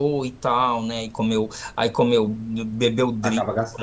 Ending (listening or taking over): listening